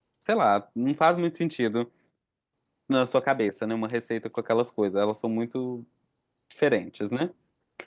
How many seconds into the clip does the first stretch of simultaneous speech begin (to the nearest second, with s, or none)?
none